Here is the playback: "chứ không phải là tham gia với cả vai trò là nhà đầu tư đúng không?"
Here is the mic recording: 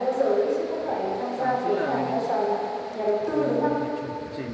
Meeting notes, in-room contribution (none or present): present